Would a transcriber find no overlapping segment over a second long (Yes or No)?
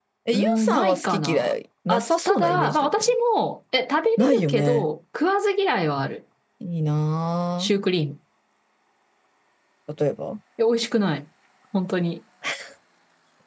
No